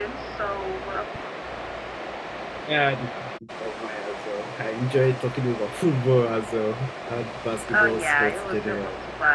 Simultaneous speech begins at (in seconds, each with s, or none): 7.6 s